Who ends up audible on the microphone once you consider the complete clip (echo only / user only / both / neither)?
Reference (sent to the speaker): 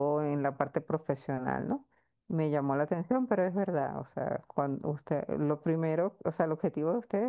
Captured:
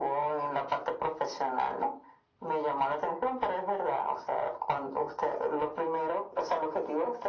echo only